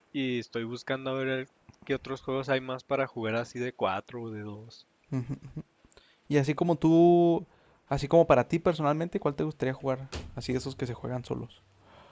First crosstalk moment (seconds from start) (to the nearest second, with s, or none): none